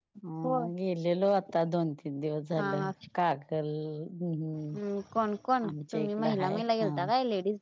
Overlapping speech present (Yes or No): Yes